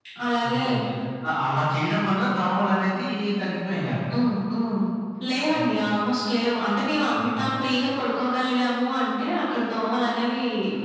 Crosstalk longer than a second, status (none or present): none